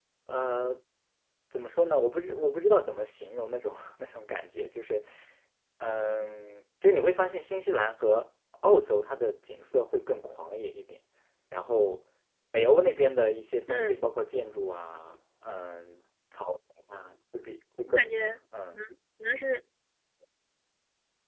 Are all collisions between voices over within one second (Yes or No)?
Yes